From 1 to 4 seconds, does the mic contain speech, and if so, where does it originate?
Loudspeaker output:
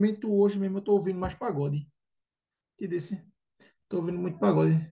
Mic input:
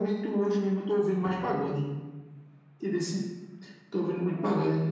echo only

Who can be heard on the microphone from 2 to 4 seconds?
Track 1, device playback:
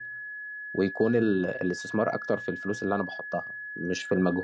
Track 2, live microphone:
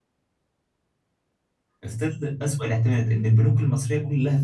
user only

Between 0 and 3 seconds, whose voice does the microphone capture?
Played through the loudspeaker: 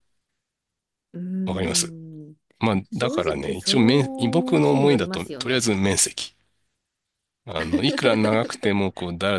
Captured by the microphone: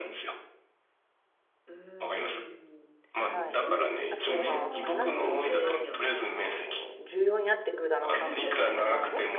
echo only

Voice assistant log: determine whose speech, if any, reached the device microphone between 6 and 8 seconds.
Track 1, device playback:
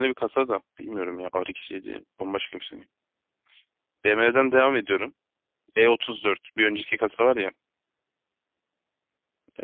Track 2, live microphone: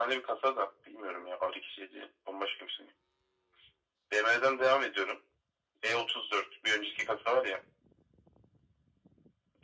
echo only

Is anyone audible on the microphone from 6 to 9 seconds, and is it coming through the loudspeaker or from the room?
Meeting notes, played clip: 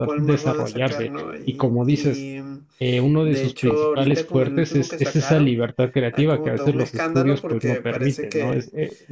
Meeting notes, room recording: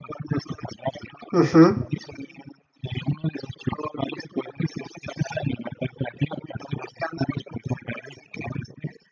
echo only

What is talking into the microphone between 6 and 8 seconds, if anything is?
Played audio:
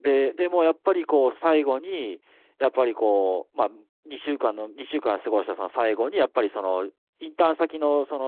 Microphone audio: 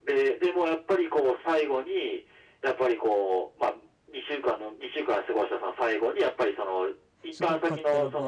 both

